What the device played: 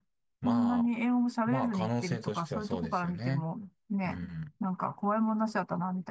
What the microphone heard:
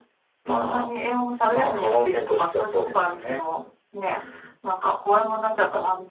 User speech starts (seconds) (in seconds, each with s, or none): none